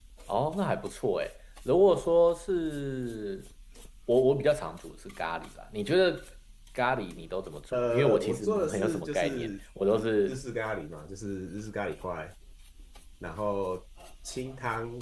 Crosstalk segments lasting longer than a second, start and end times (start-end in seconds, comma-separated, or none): 7.7-9.5